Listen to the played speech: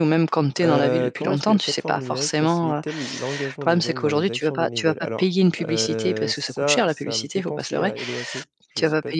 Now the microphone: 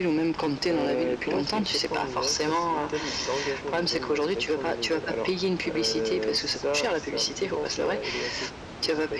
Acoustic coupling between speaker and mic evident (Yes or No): Yes